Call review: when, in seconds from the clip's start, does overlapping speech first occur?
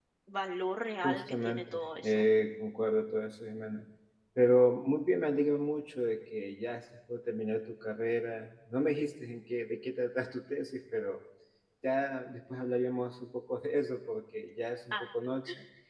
1 s

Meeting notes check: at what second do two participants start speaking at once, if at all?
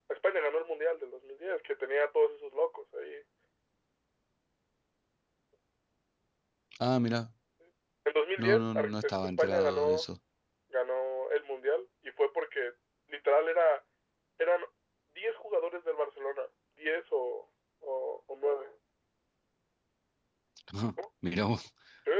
8 s

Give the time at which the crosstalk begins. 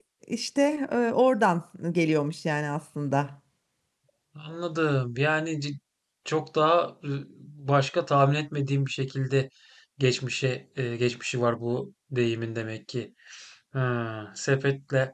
none

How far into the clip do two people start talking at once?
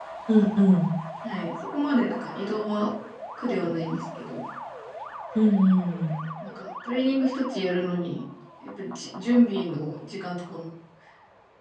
none

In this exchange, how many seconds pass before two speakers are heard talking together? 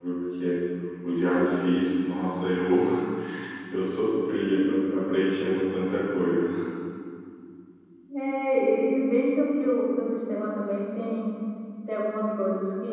none

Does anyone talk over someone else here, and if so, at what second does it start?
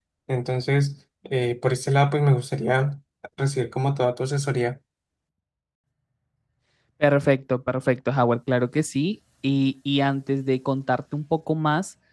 none

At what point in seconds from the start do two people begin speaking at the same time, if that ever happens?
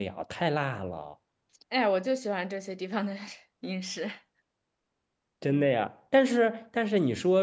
none

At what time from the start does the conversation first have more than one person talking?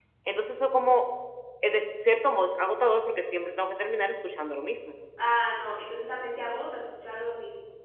none

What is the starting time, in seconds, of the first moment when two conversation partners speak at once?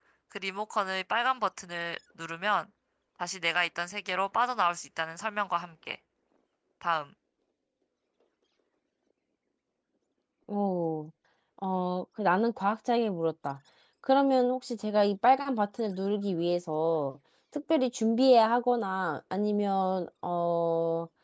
none

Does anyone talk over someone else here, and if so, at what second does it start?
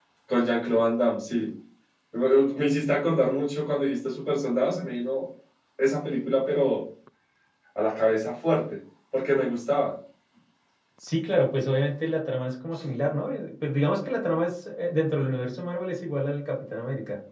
none

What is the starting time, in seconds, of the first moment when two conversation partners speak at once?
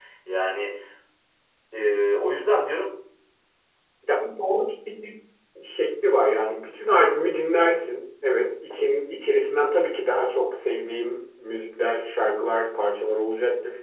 none

